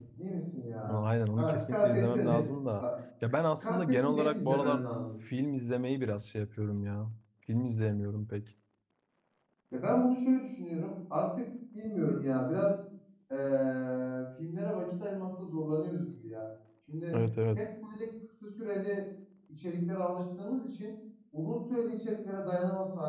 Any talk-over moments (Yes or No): Yes